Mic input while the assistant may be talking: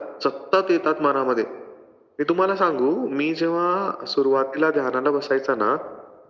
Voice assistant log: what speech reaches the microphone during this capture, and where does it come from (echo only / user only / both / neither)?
echo only